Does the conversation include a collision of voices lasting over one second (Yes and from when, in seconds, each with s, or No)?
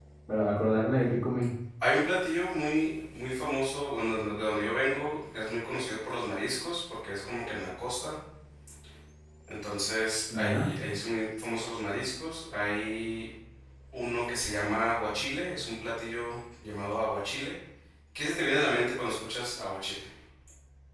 No